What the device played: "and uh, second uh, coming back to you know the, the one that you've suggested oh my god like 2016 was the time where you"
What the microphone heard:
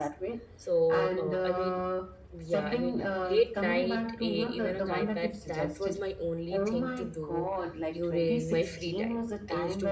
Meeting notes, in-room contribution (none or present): present